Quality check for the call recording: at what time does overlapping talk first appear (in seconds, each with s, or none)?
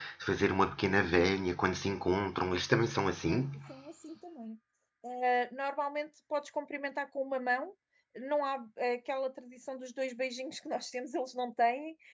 none